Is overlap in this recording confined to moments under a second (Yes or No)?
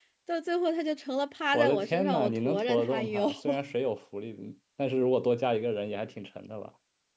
No